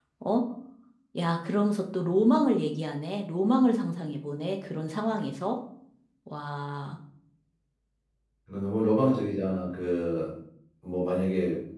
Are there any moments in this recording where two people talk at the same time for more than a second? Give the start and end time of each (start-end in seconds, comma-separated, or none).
none